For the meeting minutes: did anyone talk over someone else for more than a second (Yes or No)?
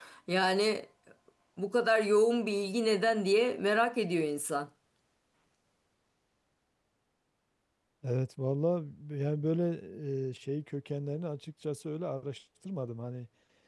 No